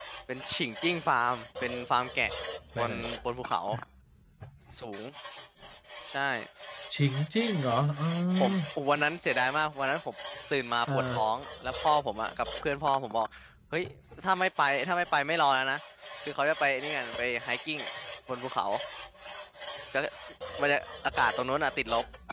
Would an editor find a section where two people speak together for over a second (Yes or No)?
No